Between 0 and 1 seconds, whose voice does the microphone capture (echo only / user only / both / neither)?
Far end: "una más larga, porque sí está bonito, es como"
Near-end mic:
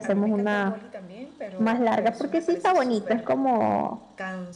both